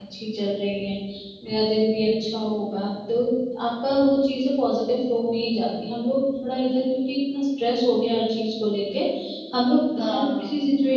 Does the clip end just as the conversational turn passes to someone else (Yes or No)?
No